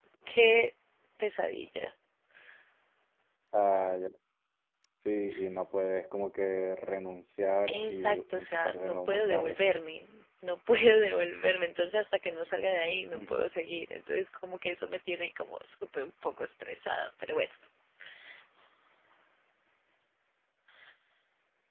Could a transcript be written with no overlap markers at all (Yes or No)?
No